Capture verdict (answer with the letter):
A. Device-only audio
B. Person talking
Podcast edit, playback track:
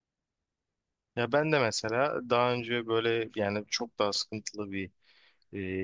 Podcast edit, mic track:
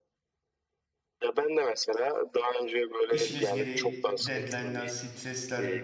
B